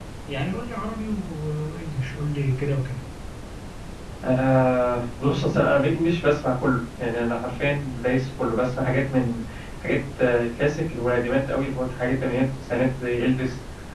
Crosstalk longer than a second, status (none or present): none